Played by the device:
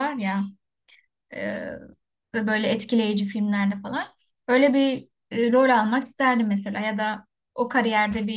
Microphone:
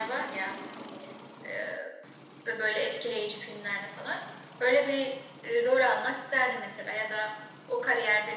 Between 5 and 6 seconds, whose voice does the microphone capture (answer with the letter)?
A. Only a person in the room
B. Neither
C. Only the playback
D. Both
C